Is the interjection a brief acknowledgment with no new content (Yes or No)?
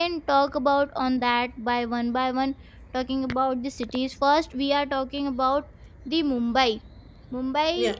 Yes